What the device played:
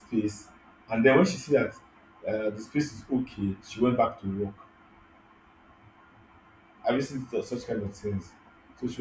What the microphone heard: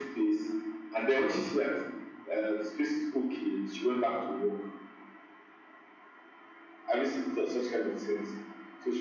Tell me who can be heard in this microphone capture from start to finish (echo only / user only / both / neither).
echo only